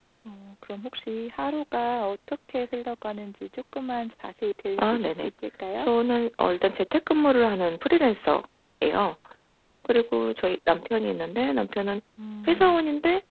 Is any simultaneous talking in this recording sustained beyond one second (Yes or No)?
No